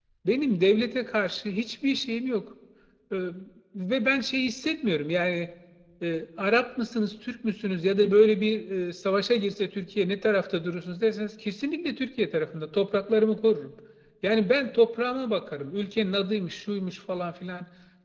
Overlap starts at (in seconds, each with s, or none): none